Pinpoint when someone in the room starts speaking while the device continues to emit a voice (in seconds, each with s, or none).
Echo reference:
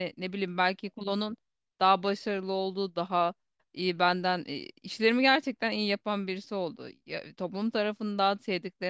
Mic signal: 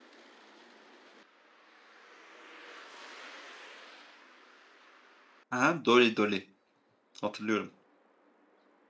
5.5 s